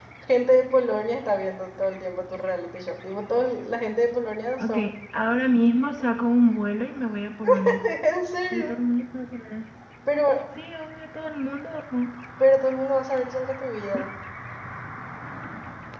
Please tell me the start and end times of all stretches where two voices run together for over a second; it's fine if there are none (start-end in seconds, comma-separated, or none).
none